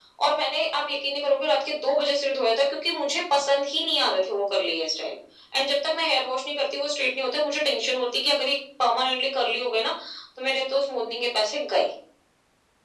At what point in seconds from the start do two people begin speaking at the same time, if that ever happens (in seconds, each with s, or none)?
none